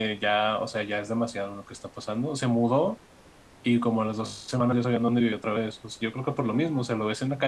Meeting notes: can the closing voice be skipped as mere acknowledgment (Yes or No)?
Yes